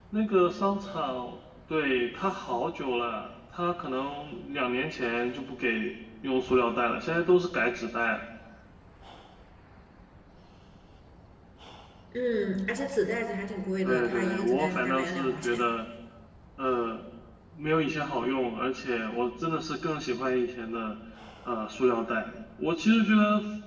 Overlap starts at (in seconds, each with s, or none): 13.8 s